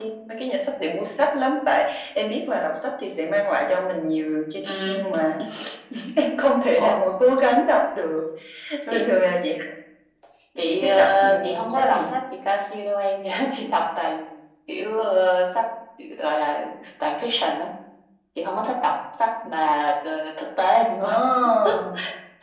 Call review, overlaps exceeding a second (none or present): present